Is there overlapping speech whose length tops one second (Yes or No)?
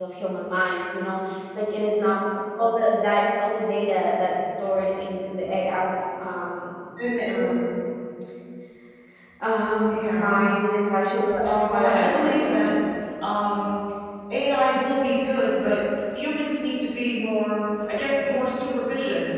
Yes